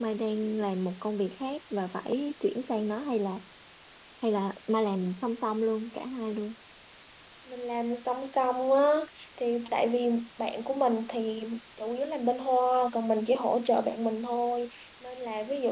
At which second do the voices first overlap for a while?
none

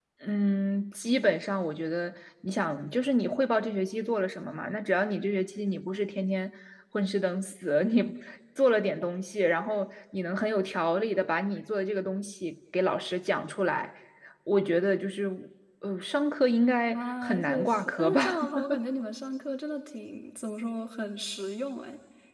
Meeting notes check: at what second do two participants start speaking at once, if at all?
16.9 s

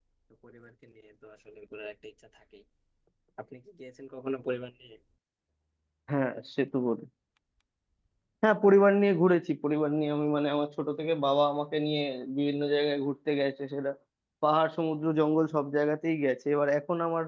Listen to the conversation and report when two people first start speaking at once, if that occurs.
none

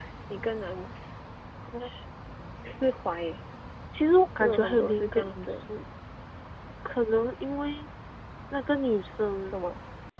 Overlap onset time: 4.4 s

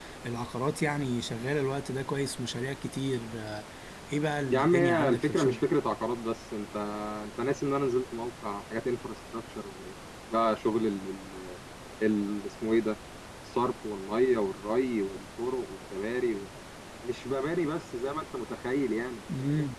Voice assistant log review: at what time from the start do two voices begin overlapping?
4.4 s

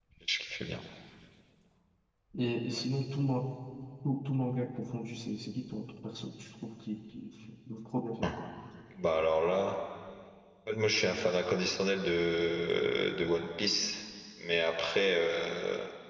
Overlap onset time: none

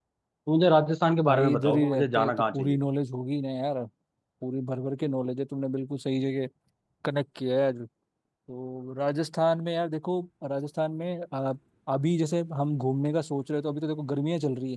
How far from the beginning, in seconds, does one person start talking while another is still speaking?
1.2 s

